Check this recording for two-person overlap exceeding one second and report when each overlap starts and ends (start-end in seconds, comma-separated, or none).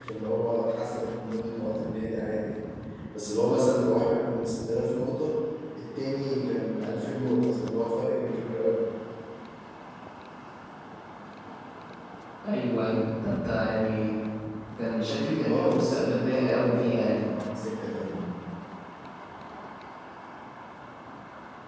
15.4-17.3